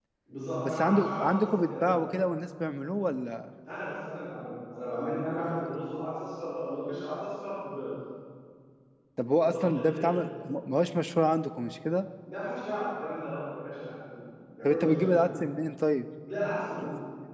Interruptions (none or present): present